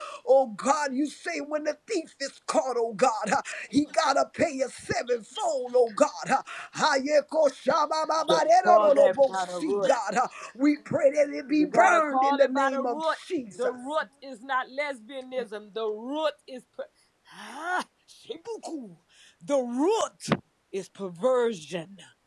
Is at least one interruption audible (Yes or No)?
Yes